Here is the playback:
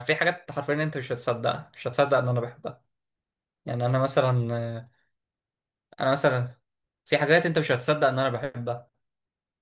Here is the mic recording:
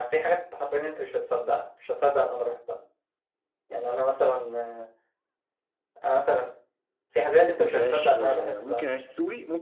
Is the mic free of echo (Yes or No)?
No